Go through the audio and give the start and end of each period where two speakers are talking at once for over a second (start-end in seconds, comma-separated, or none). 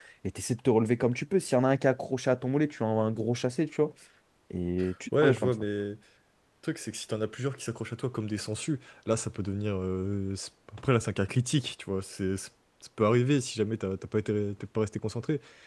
none